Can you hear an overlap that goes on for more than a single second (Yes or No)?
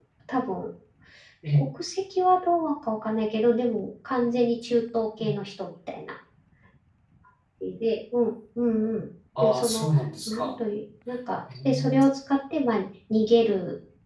No